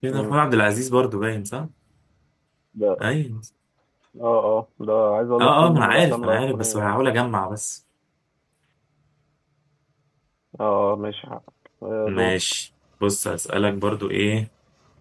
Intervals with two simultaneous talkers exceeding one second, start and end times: 5.4-6.9

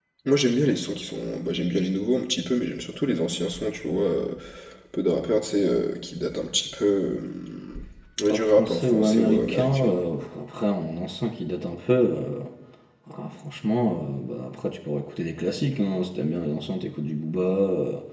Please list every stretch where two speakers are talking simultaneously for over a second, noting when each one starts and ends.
8.3-9.9

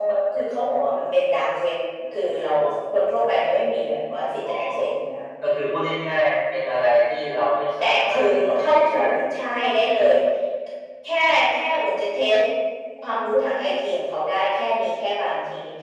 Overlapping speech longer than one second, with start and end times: 7.8-9.6

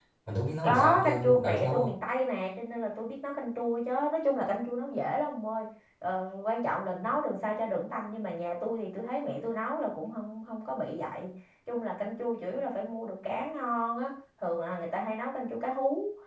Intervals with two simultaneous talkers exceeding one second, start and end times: 0.6-1.9

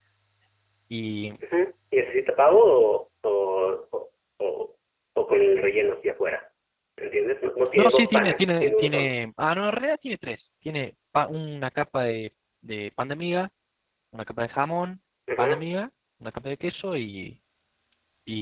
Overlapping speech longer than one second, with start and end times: 7.8-9.1

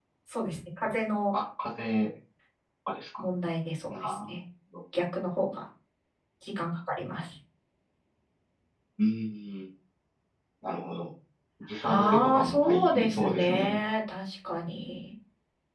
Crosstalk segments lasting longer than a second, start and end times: 11.8-13.8

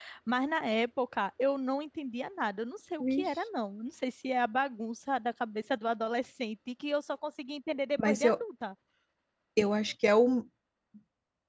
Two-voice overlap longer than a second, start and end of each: none

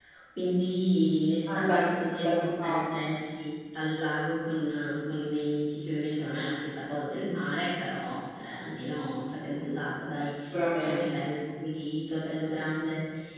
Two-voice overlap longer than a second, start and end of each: 1.5-2.8

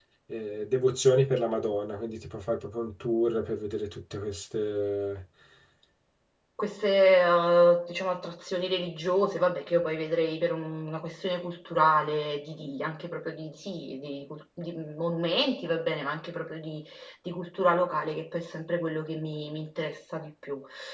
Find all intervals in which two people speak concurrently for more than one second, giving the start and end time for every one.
none

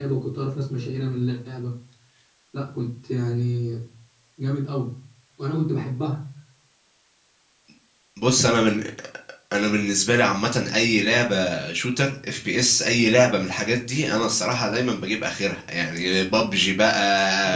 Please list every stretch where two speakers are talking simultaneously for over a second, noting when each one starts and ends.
none

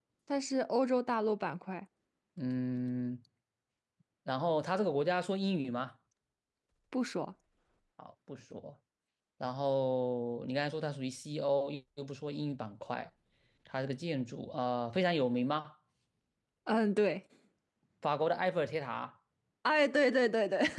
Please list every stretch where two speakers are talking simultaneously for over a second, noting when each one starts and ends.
none

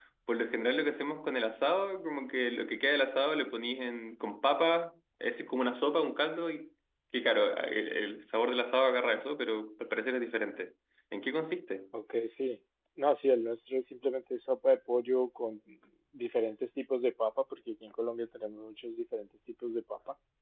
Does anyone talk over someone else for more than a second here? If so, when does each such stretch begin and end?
none

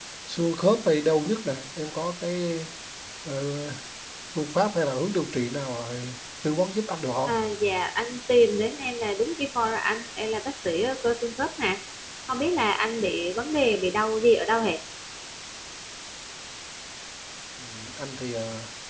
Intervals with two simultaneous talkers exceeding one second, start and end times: none

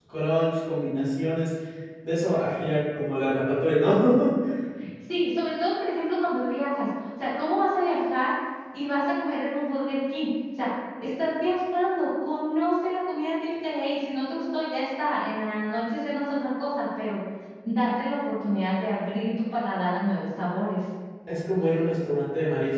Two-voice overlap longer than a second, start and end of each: none

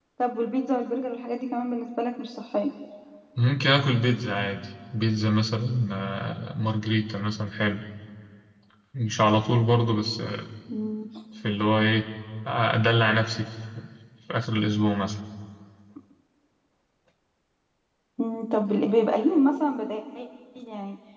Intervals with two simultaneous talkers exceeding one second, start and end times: none

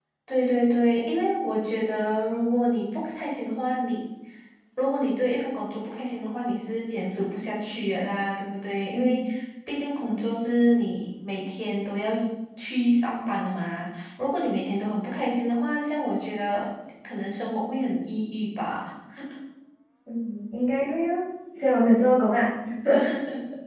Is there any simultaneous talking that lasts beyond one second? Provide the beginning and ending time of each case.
none

